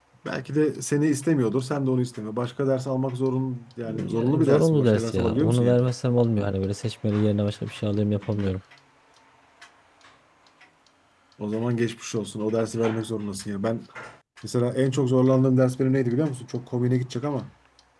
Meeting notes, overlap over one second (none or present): present